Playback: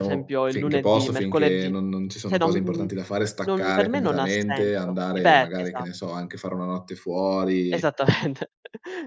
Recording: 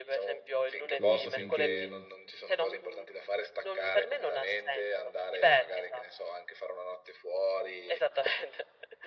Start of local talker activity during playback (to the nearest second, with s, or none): 1 s